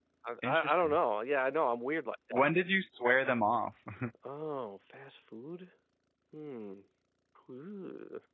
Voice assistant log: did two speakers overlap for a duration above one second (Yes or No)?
No